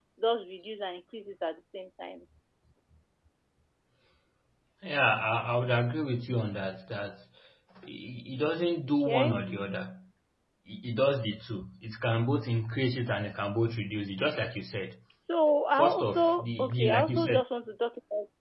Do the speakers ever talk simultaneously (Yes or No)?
Yes